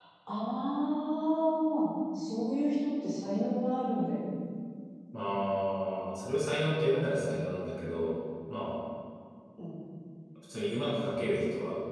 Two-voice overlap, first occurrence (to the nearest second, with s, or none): none